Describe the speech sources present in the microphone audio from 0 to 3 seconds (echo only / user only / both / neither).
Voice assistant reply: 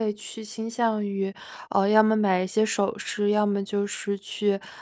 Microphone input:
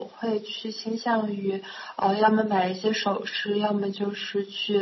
echo only